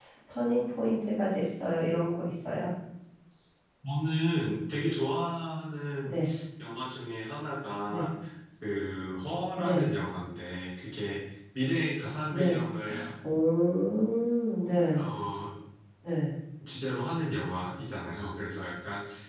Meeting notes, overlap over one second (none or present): none